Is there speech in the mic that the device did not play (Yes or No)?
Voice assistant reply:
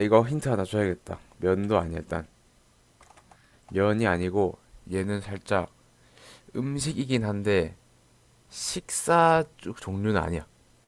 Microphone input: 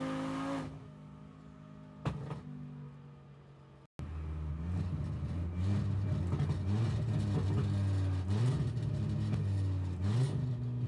No